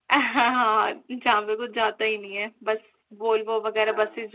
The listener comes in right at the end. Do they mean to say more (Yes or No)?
No